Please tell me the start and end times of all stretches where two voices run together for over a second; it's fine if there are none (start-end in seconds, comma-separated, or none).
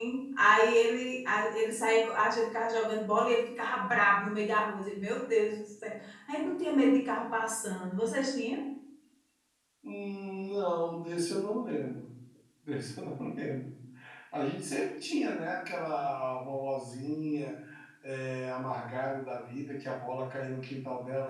none